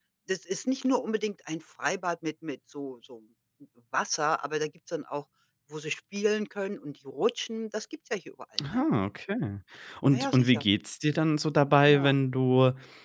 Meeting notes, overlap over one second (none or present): none